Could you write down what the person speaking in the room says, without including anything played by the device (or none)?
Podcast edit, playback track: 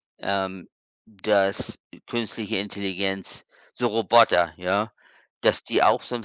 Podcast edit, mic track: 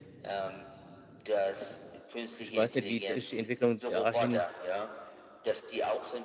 ich weiß nicht, wie sich die Entwicklung dahin